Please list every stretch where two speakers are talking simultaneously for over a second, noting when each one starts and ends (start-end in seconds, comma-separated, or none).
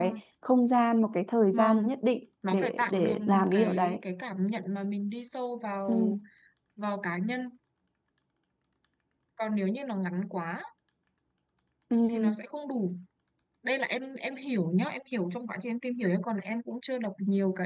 2.5-4.0